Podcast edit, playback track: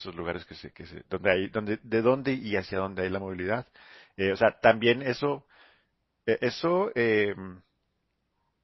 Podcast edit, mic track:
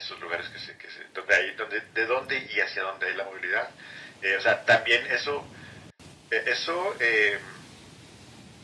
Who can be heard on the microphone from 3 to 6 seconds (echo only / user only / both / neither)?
echo only